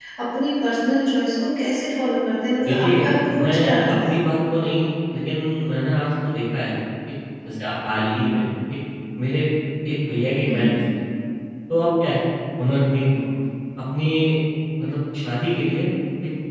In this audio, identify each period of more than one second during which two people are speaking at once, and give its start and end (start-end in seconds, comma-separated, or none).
2.6-4.2